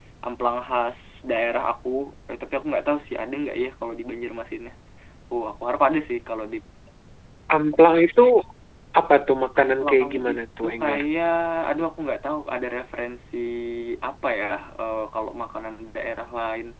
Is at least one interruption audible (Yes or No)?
Yes